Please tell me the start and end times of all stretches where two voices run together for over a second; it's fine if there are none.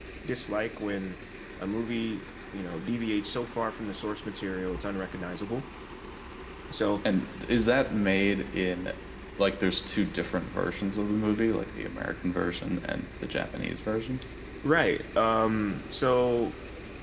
none

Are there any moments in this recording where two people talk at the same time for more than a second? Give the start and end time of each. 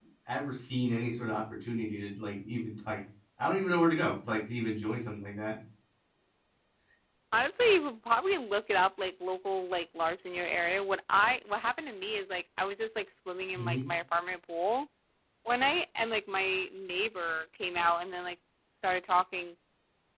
none

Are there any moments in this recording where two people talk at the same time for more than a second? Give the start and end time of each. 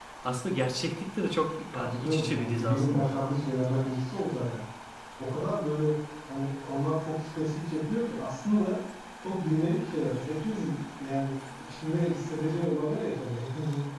1.7-3.1

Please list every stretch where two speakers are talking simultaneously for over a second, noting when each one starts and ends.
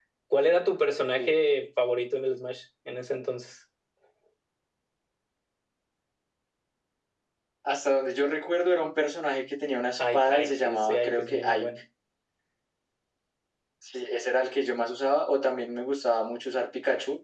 10.0-11.7

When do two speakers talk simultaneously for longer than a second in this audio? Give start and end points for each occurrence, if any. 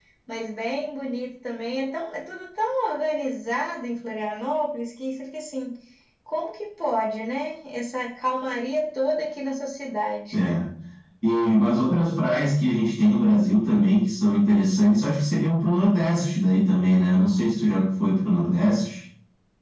none

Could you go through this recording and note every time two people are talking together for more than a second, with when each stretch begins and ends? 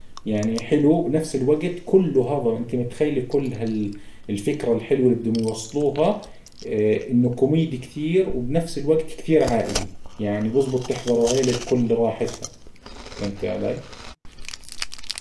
none

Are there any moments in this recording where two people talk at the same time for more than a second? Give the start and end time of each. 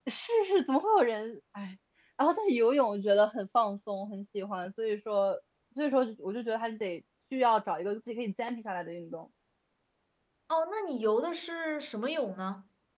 none

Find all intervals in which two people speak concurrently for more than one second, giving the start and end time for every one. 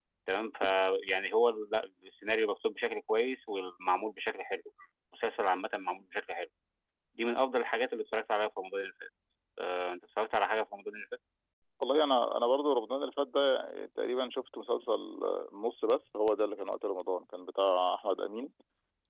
none

